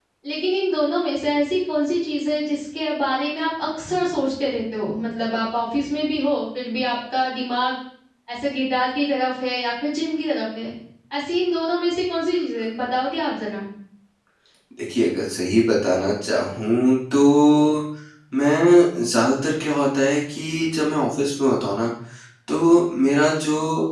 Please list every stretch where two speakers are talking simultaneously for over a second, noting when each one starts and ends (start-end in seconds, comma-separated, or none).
none